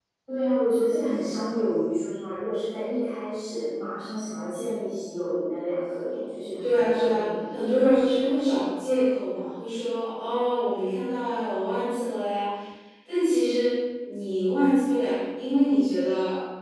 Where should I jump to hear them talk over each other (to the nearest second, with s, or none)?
7 s